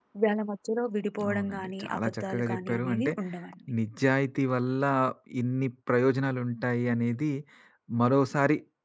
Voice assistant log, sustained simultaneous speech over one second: present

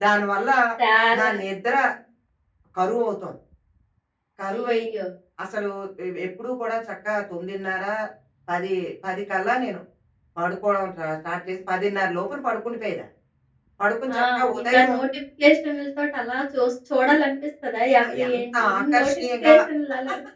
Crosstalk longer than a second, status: present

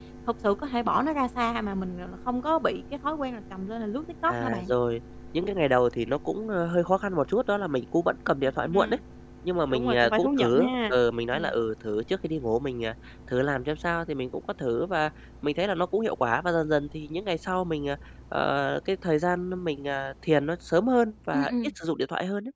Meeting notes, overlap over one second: present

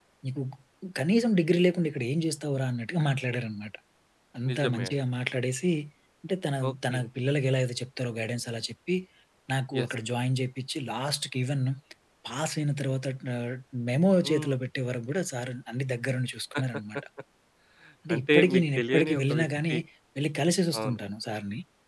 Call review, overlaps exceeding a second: present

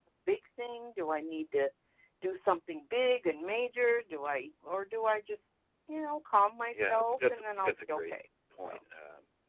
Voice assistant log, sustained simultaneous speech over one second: present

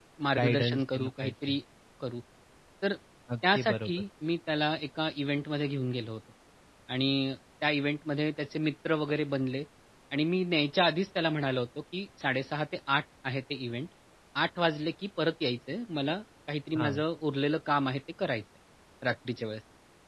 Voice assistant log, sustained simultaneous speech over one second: present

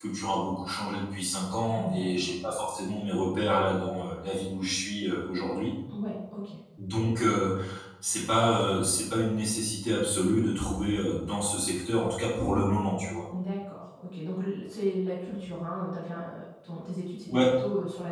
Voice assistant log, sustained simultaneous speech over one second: none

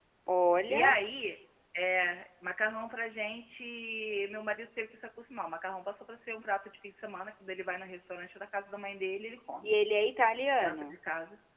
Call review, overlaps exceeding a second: none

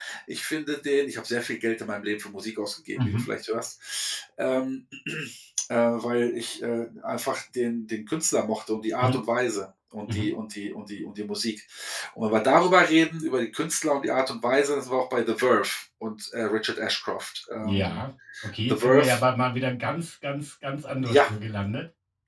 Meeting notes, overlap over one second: none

